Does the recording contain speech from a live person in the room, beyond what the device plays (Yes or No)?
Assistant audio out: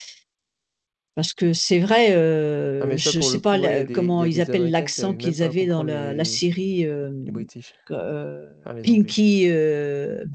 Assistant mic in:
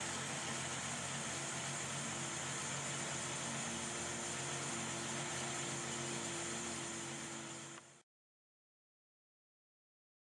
No